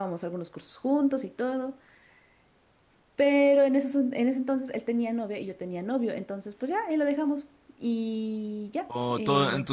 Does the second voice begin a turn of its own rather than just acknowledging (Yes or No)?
Yes